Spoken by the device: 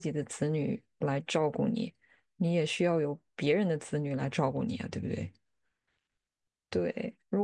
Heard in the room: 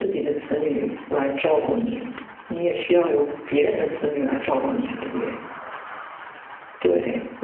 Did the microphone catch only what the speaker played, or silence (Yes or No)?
Yes